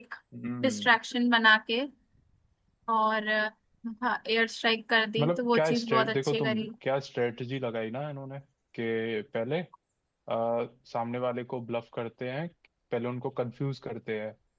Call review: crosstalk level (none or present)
present